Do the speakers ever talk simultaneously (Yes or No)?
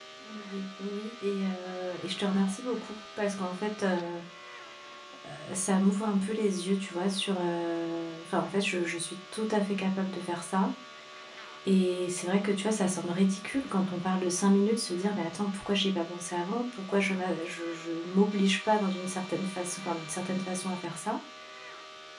No